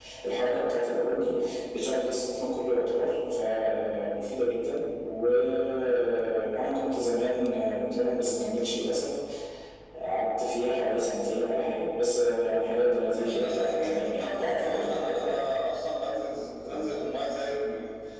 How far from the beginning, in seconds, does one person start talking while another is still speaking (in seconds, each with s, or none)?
13.1 s